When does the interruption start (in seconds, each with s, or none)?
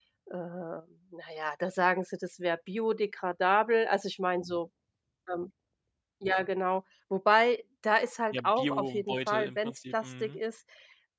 8.3 s